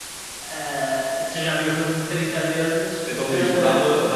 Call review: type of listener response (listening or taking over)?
taking over